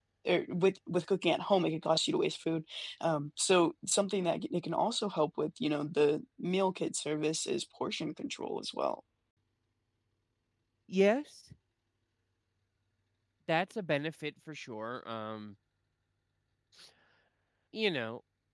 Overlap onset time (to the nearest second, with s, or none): none